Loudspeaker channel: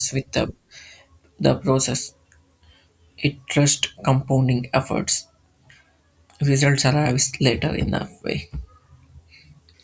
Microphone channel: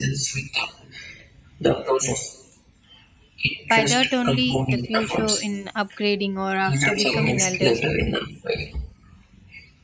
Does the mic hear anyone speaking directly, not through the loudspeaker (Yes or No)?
Yes